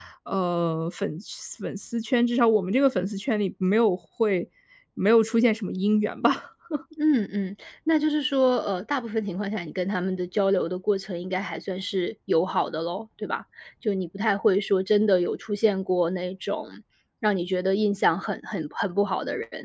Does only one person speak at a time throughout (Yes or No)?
Yes